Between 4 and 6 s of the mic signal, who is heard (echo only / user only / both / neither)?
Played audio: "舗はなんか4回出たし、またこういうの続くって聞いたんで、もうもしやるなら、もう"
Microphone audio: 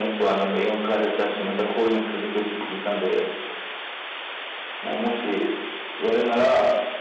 echo only